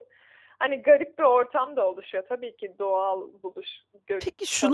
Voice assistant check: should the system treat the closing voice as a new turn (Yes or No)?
Yes